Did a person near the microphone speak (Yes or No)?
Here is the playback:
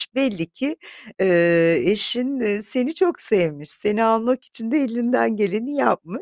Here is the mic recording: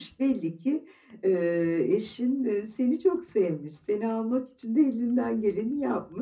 No